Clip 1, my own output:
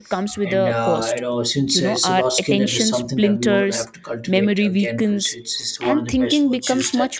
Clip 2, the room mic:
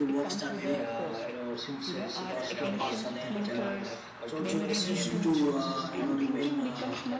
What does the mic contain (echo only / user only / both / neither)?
both